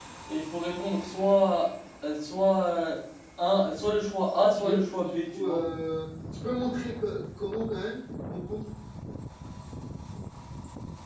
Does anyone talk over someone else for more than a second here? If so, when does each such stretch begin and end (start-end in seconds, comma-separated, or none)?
4.4-5.6